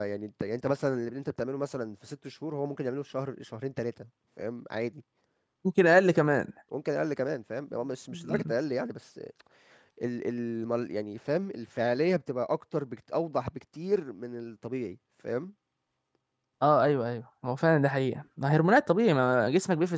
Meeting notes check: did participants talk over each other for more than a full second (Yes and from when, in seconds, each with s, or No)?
No